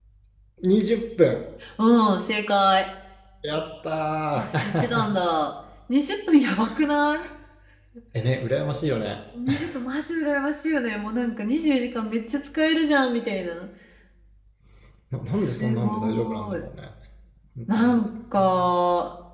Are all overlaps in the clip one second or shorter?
No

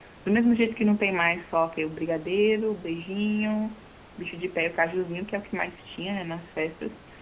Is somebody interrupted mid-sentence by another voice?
No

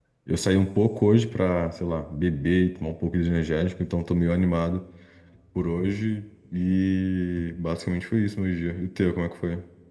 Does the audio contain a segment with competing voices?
No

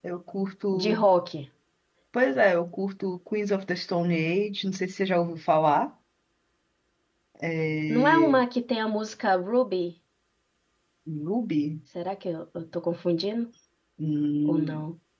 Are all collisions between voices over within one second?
Yes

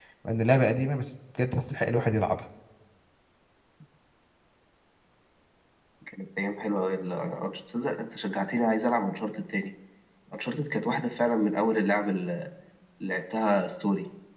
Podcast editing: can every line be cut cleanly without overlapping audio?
Yes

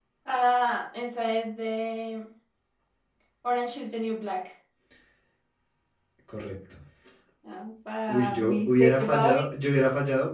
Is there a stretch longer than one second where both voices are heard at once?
Yes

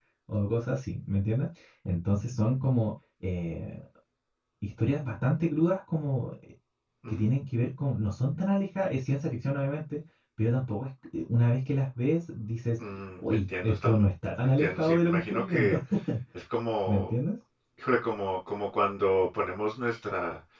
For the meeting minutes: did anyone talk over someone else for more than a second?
Yes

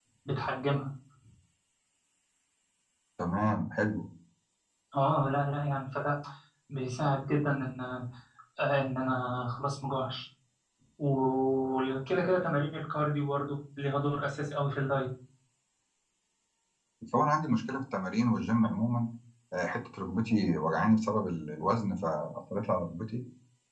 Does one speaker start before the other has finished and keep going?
No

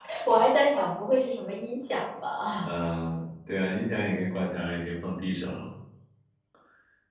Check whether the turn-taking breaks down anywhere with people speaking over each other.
No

